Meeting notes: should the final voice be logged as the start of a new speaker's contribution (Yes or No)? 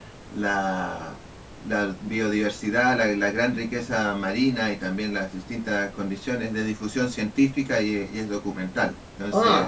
Yes